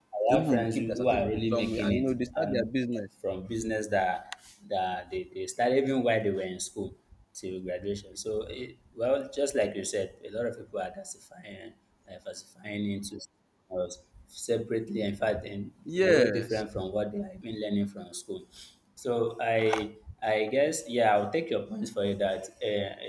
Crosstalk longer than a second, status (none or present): present